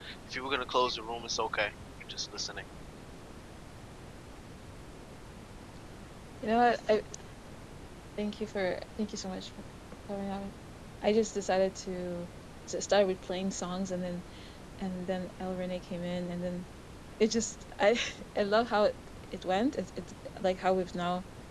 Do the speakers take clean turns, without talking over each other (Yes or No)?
Yes